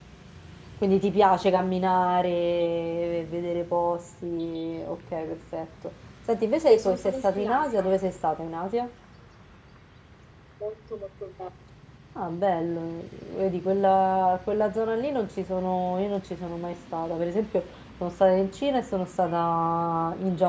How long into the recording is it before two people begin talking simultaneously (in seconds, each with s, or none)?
6.7 s